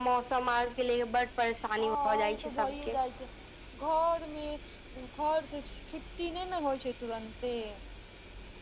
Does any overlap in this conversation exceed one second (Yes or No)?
Yes